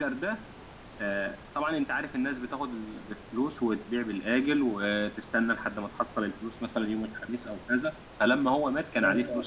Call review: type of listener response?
listening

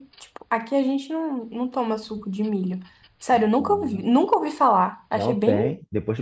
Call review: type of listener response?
taking over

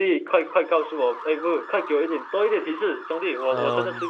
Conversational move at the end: taking over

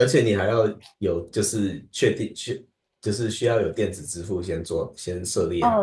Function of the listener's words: taking over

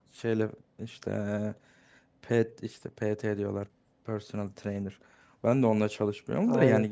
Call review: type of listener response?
listening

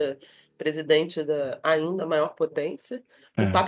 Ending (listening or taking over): listening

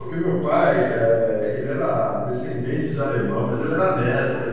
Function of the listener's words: listening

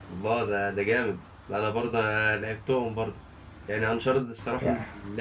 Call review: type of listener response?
listening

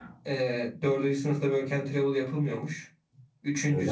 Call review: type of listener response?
listening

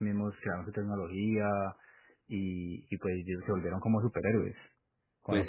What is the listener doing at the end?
taking over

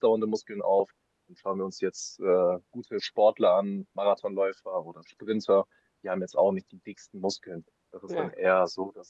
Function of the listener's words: listening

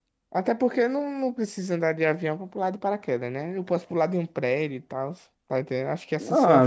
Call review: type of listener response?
taking over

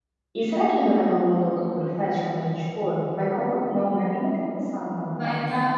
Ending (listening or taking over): taking over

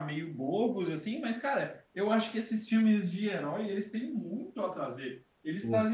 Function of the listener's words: listening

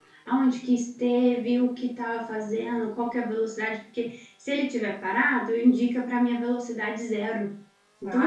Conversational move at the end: taking over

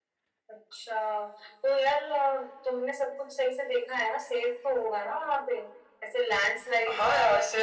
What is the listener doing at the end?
taking over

